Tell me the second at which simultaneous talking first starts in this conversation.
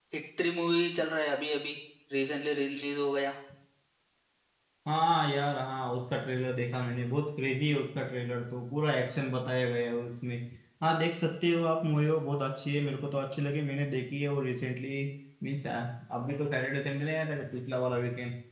none

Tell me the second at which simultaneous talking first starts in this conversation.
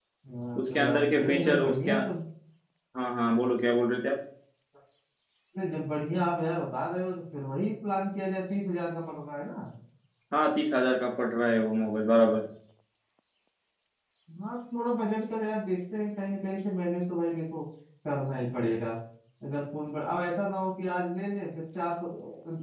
0.7 s

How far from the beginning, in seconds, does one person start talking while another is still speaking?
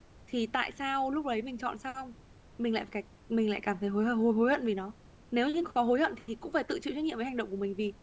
none

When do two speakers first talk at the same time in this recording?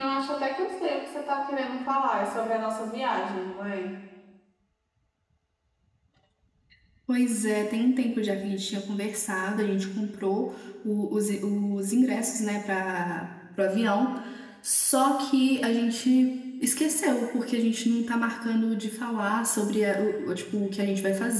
none

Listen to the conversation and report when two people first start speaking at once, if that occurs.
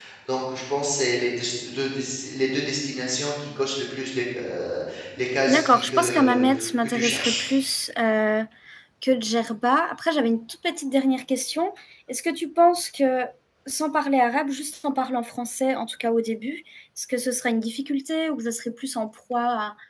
5.5 s

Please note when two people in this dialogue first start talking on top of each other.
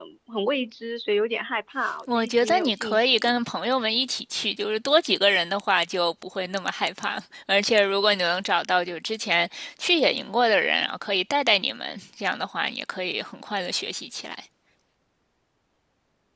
2.1 s

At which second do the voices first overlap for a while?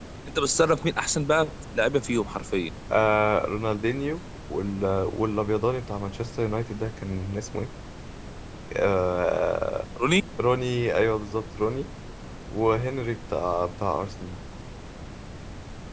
none

